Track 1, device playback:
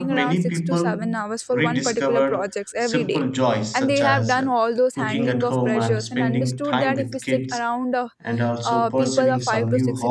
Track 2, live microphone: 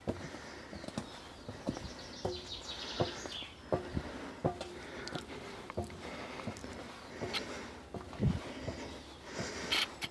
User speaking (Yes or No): No